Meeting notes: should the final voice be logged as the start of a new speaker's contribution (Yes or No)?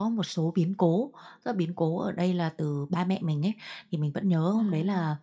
No